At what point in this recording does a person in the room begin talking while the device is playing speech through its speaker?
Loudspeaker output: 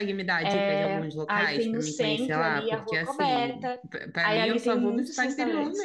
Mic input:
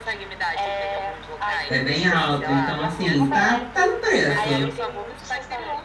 1.7 s

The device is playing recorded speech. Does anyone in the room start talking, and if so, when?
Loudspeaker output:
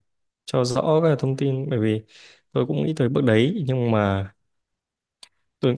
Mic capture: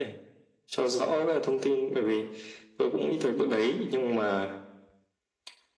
none

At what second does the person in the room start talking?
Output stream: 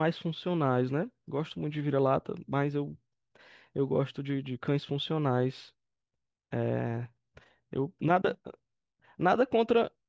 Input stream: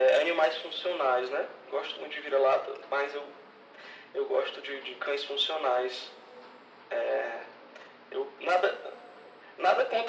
none

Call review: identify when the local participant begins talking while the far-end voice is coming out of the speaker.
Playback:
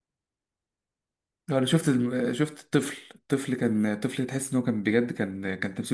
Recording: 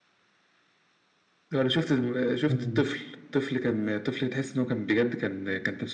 2.5 s

